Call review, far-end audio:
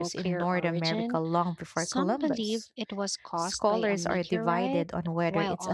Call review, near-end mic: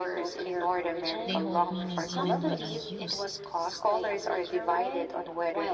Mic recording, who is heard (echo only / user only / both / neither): both